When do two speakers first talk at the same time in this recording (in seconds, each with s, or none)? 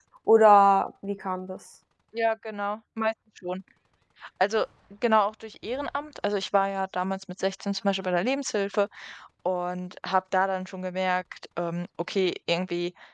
none